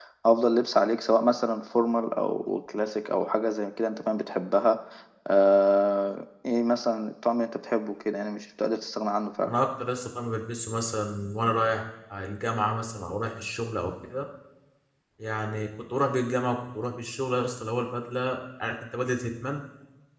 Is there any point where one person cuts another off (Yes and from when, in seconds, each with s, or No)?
No